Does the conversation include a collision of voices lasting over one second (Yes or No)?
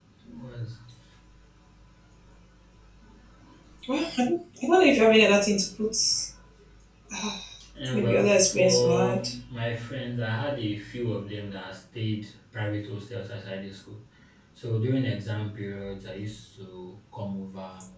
Yes